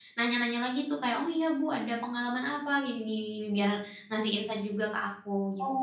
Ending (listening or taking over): taking over